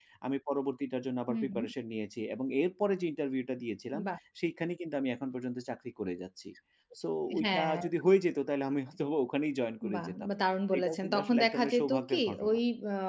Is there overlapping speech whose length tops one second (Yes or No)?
Yes